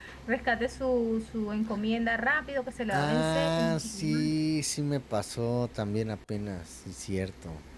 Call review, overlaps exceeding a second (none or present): present